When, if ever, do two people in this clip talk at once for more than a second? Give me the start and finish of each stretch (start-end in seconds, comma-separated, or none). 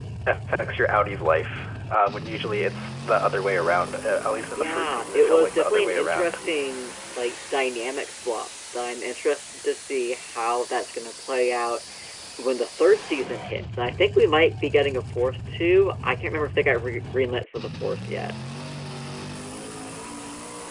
4.6-6.4